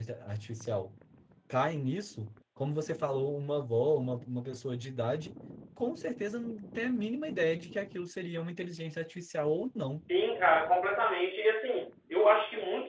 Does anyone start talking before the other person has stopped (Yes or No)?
No